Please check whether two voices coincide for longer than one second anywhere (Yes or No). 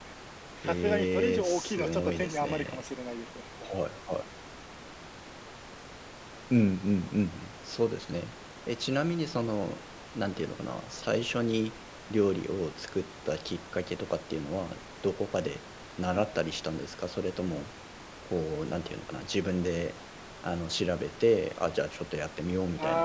Yes